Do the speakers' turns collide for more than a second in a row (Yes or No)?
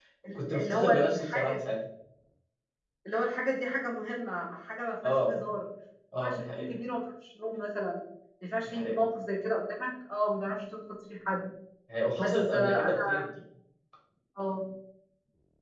Yes